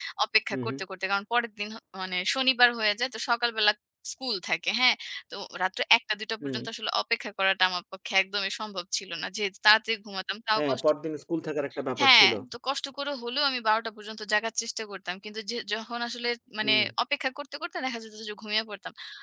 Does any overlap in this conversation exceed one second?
No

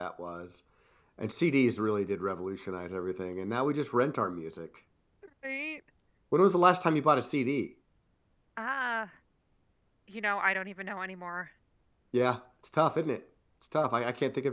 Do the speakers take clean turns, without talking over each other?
Yes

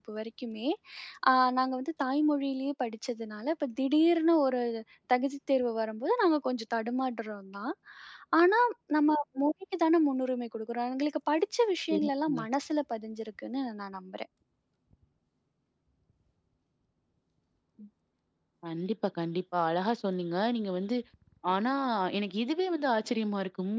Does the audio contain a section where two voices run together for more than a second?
No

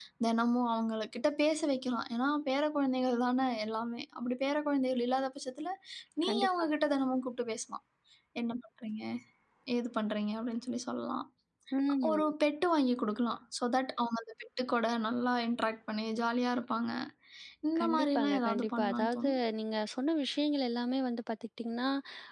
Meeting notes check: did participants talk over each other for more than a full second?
Yes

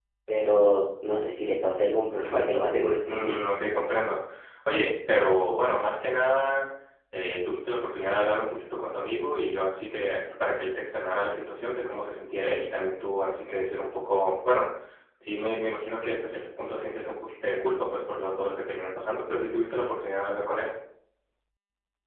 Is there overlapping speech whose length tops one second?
No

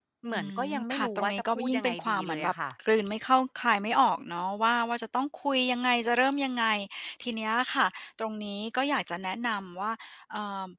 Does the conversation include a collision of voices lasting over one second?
Yes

